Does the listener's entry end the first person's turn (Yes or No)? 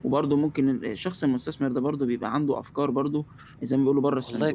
Yes